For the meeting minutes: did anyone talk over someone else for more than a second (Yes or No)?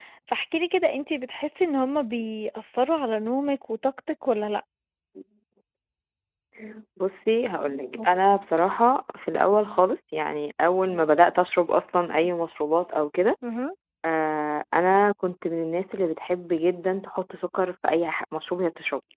No